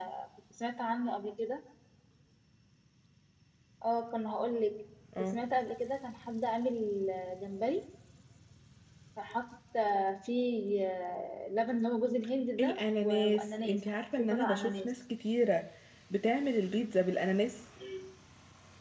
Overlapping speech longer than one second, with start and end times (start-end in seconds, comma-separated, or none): 12.6-14.9